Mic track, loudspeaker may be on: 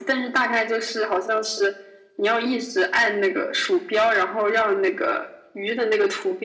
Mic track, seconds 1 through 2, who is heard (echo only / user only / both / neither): echo only